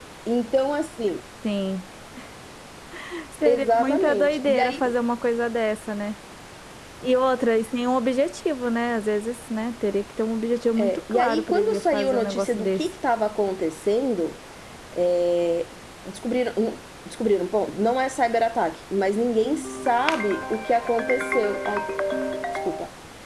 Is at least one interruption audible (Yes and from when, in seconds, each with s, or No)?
Yes, from 3.4 s